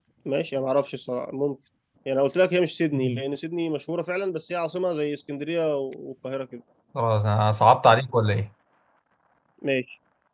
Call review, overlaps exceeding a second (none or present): none